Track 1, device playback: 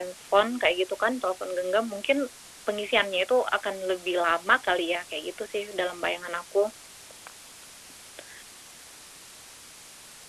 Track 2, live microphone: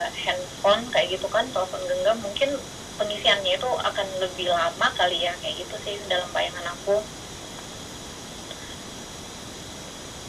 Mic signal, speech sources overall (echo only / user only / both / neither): echo only